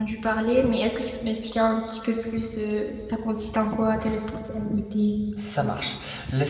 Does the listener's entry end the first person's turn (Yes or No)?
Yes